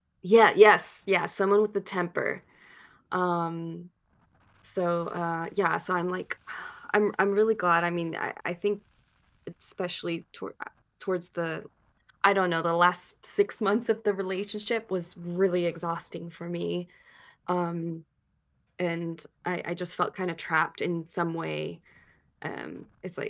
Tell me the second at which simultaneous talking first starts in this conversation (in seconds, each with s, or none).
none